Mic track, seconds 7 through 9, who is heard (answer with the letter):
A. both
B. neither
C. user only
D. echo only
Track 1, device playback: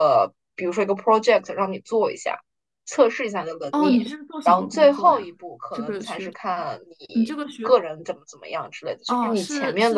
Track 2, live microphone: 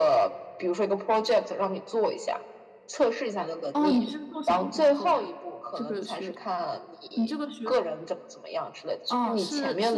D